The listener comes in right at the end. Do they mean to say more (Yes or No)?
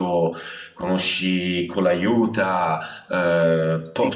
Yes